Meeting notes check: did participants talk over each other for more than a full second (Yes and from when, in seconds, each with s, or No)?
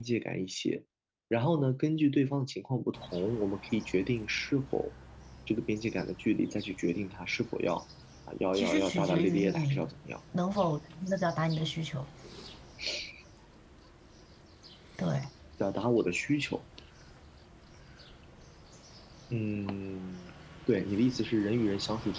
Yes, from 8.5 s